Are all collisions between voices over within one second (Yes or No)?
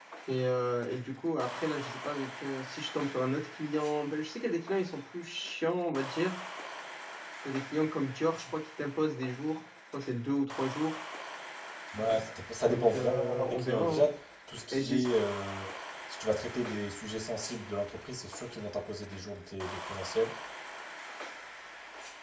No